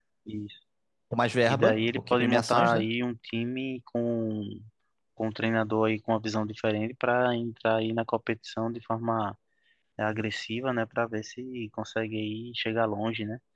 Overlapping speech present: Yes, from 1.5 s

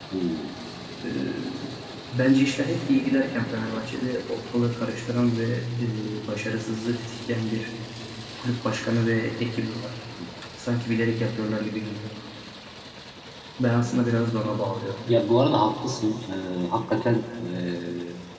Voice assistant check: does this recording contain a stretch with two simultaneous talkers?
No

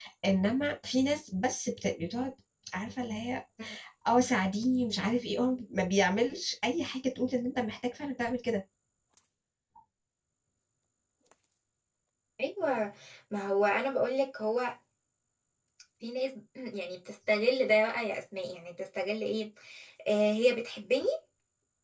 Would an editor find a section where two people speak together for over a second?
No

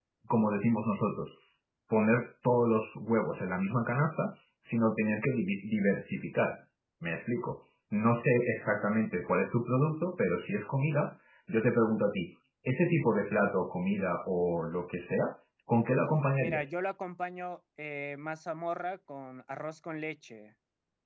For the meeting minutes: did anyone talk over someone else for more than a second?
No

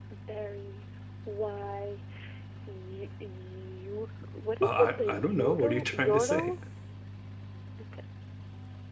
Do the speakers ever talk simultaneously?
Yes, from 4.6 s

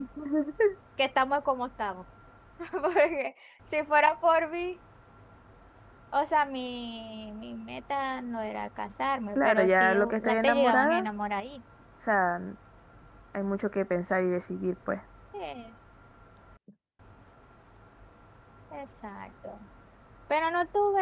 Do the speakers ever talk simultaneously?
Yes, from 9.4 s

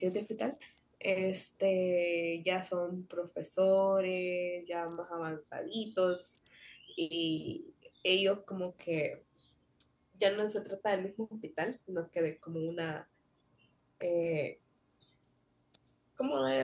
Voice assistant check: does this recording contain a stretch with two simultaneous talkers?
No

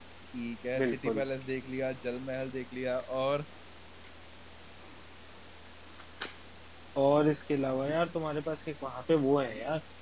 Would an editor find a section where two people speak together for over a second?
No

